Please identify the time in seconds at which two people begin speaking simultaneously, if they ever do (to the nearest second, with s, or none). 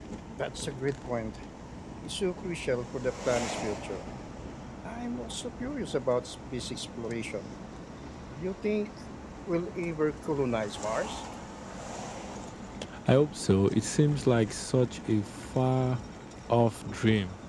none